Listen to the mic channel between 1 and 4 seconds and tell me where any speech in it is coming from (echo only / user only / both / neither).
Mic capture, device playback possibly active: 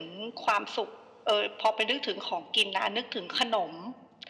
echo only